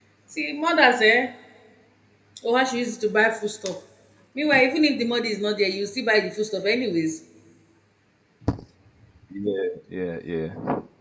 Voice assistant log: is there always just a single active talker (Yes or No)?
Yes